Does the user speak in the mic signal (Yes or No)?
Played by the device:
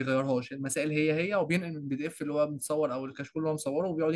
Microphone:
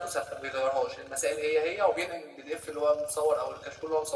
No